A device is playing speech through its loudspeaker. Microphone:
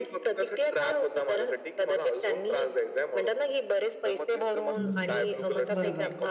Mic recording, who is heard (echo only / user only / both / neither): both